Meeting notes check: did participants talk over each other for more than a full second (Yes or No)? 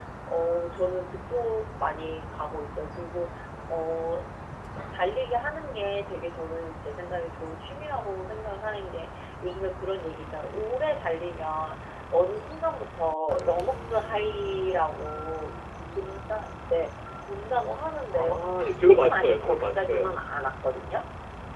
Yes